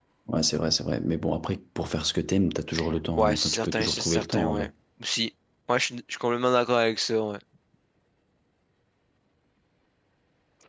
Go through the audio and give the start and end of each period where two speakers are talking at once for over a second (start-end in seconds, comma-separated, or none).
3.2-4.7